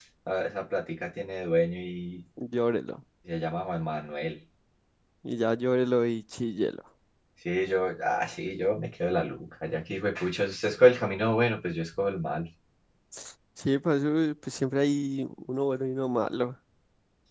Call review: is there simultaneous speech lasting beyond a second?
No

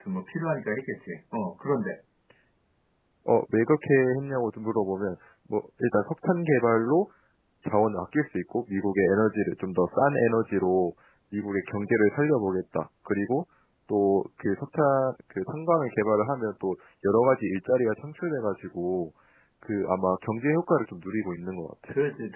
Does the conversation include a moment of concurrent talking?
No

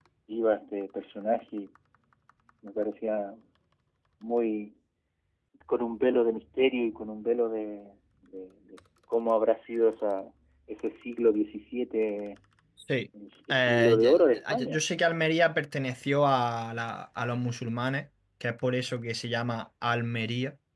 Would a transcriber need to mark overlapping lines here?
Yes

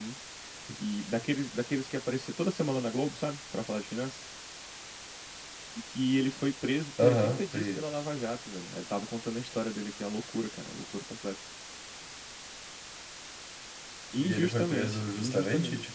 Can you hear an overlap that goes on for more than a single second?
Yes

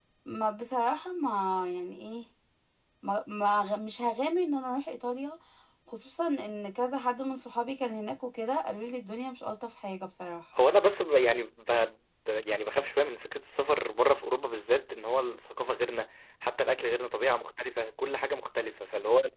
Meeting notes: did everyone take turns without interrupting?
Yes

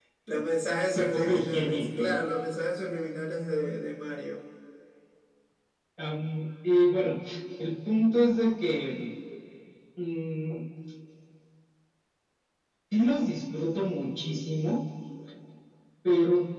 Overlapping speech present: Yes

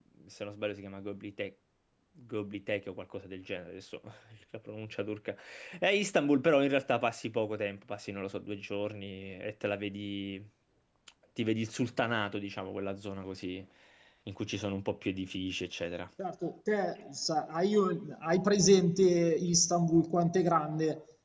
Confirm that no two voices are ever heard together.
Yes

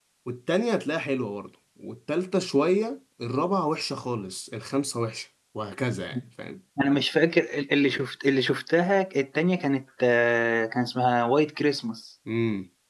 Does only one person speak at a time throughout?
Yes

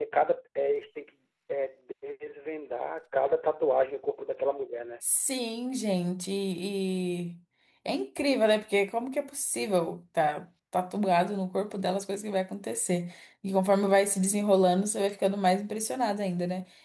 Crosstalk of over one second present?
No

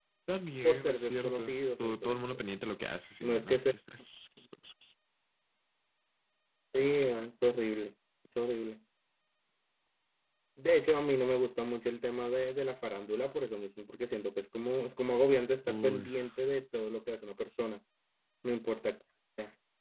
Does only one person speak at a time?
No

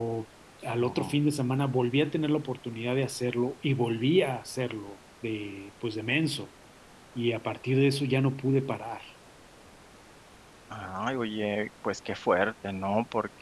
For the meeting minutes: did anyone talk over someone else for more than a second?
No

